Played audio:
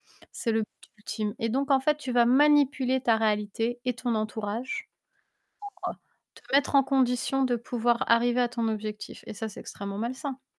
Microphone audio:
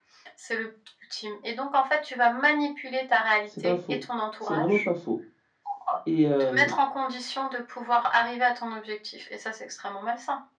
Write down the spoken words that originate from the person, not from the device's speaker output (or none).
C'est pas faux. C'est vraiment pas faux et hem